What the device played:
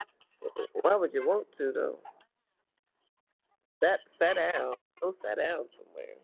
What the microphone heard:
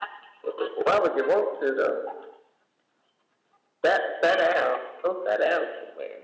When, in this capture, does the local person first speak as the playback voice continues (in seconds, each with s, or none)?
none